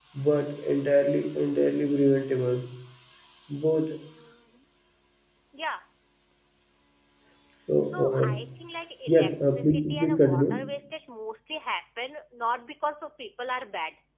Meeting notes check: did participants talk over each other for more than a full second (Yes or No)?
Yes